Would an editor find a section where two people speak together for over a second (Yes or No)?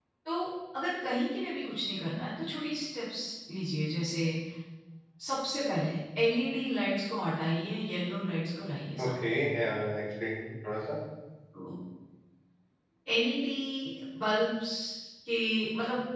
No